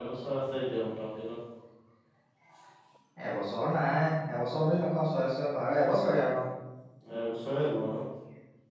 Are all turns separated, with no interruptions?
Yes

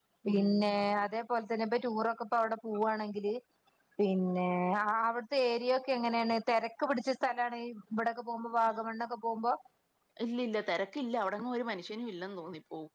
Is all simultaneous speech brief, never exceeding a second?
Yes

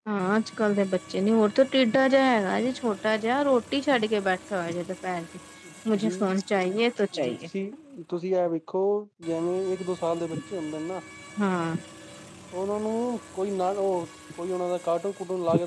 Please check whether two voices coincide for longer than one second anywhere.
No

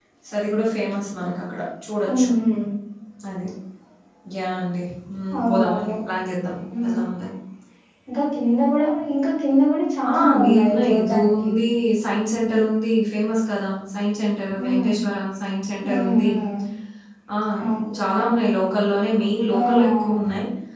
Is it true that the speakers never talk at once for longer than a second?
No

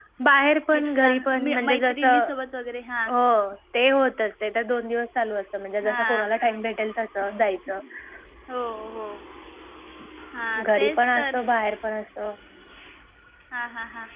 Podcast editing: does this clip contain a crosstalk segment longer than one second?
Yes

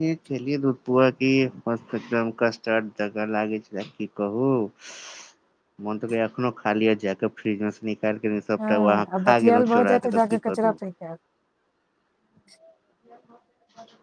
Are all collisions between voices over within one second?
No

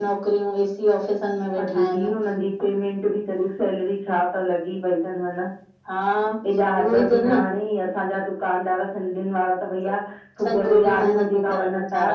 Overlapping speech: Yes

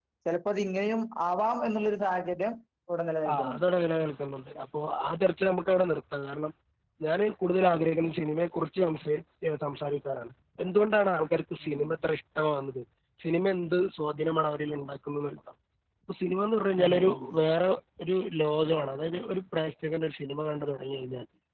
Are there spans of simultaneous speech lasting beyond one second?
No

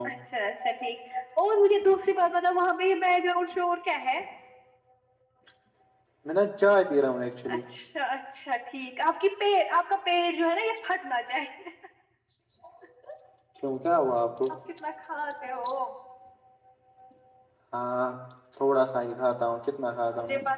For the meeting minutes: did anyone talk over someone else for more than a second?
No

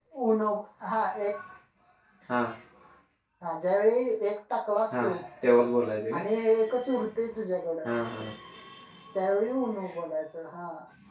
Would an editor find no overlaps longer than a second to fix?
Yes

